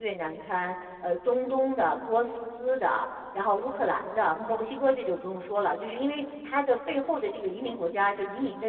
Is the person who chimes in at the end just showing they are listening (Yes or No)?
Yes